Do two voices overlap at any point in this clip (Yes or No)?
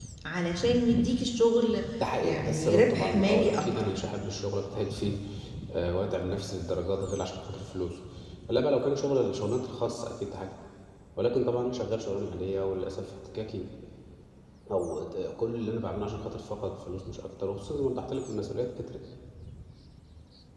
Yes